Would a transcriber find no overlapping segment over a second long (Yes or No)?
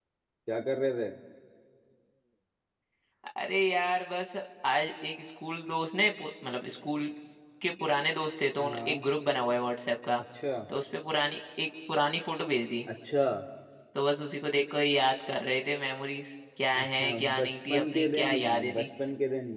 No